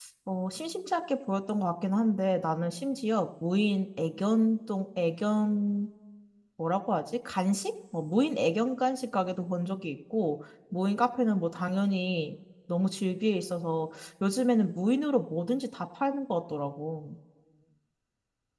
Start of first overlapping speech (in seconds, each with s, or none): none